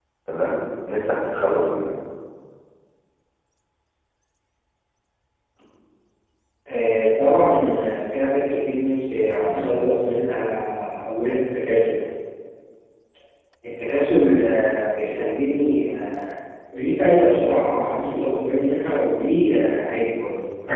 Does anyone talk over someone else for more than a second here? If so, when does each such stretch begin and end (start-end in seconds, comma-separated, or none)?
none